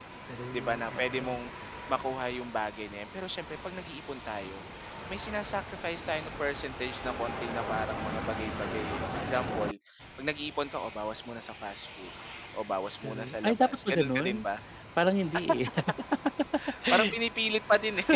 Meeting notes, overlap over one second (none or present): present